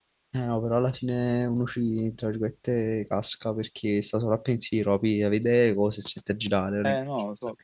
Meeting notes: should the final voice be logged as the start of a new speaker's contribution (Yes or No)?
Yes